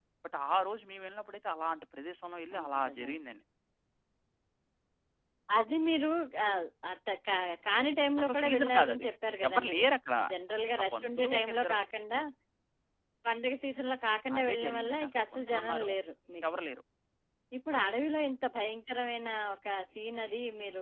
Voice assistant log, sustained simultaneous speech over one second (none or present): present